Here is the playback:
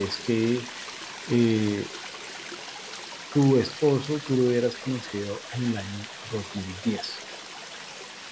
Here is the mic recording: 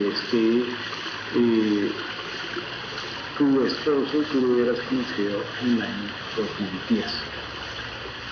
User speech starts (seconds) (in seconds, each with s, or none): none